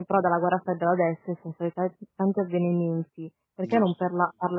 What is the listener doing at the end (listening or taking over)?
listening